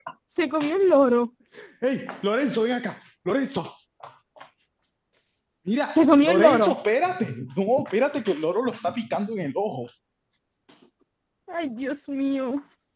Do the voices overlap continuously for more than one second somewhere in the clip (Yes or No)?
No